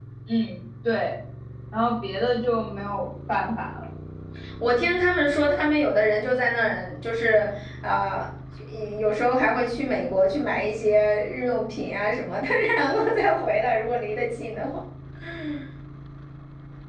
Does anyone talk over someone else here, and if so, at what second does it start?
none

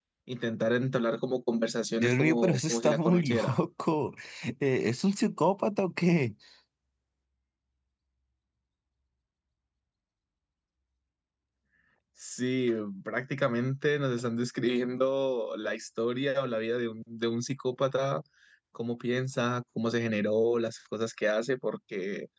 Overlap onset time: 2.0 s

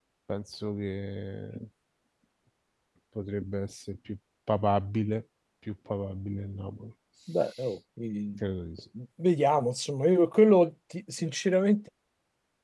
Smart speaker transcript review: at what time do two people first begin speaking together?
none

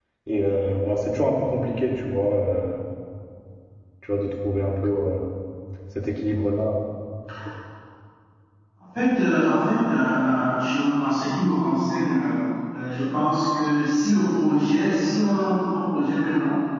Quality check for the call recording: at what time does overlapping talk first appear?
none

